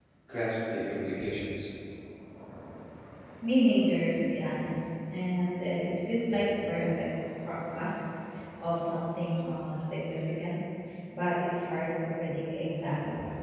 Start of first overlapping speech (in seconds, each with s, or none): none